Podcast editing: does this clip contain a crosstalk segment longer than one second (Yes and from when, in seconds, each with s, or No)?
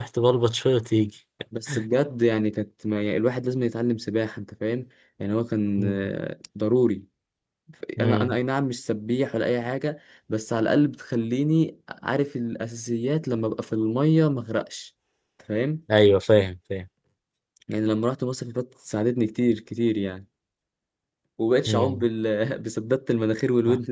No